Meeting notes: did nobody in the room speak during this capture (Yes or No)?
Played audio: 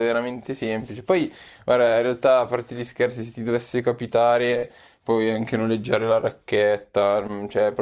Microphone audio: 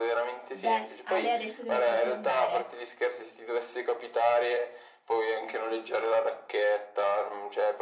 No